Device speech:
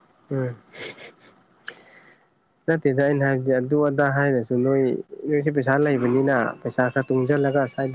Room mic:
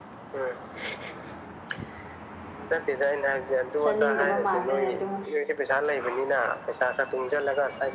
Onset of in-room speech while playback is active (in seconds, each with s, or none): 3.8 s